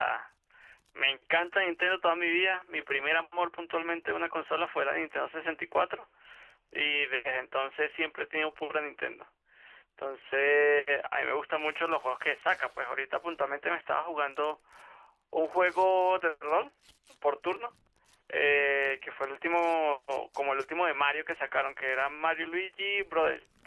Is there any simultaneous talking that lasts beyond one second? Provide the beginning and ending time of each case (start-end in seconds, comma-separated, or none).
none